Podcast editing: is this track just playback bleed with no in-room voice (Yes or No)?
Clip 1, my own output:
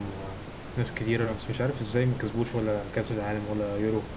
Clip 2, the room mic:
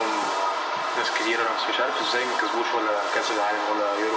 Yes